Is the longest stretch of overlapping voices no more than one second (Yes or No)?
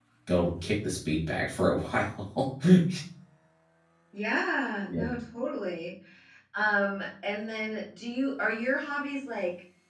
Yes